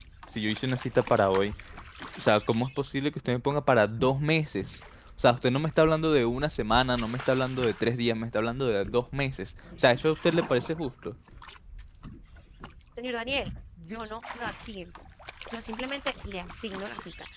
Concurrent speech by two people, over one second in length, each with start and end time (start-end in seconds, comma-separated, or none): none